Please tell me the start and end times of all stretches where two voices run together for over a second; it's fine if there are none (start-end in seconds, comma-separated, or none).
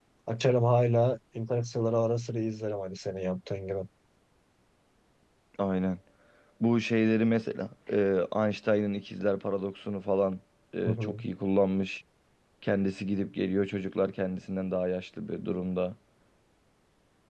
none